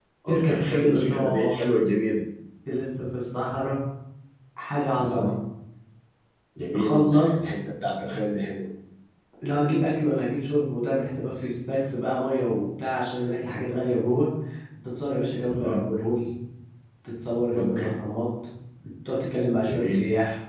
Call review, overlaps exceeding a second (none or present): present